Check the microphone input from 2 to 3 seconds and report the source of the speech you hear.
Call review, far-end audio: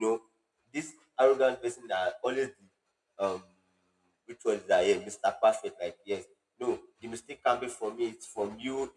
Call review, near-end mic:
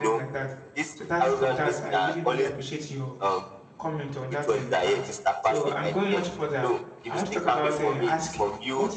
both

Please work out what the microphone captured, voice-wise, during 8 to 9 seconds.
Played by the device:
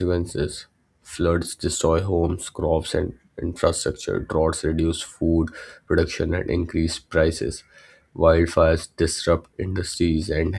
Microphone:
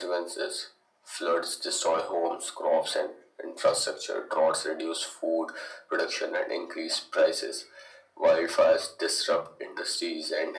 echo only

